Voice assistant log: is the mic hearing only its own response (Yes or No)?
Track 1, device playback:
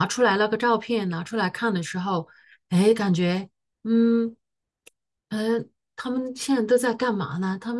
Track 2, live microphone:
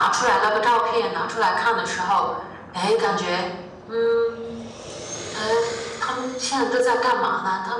Yes